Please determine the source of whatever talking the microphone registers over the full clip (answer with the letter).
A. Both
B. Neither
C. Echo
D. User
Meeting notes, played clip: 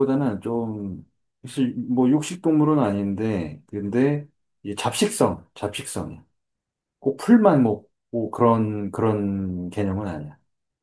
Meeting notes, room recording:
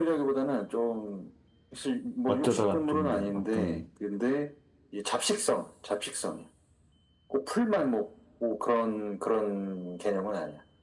A